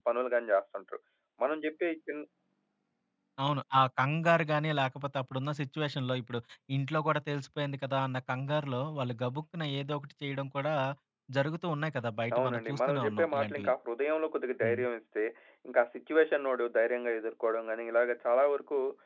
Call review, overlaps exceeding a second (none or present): present